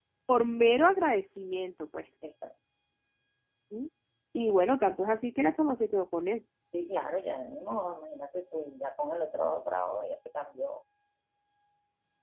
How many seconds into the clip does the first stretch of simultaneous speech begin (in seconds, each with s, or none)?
none